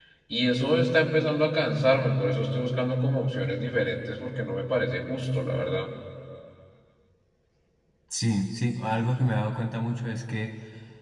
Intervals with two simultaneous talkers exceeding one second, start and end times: none

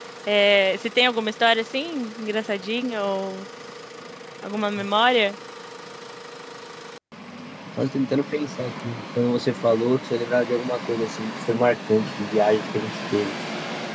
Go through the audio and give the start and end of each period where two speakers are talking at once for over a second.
none

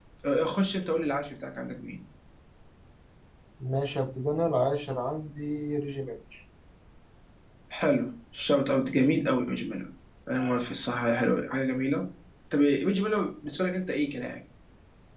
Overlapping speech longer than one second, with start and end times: none

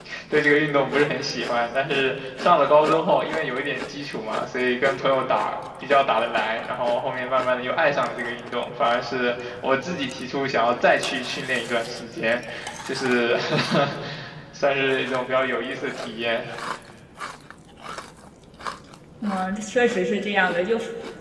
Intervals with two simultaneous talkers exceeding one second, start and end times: none

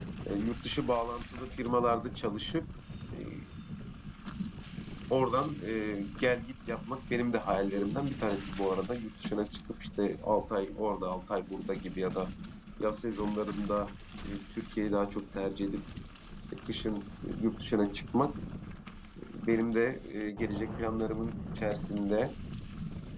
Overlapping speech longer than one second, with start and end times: none

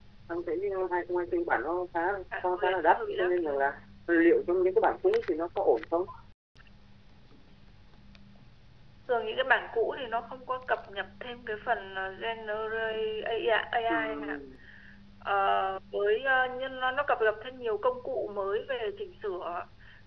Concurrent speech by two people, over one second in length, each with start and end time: 2.4-3.8

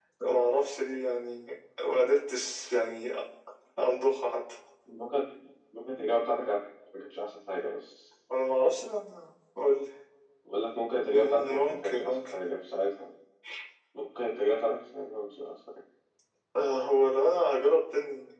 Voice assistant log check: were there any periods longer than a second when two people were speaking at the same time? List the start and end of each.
11.1-12.3

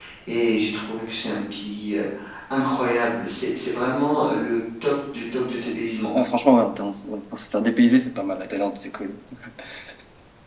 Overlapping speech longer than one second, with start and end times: none

